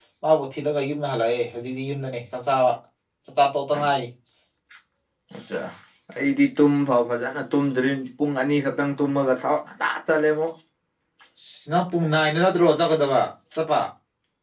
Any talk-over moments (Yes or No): No